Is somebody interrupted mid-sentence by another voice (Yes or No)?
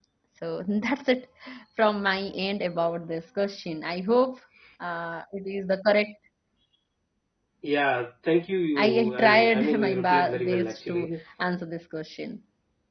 Yes